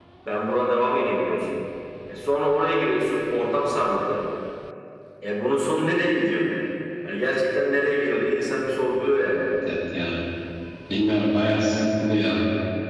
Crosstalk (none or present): none